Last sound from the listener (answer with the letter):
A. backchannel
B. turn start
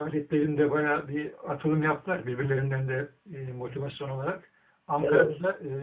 A